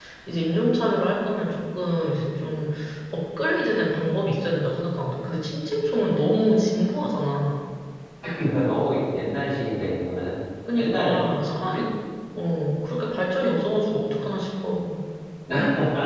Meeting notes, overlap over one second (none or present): none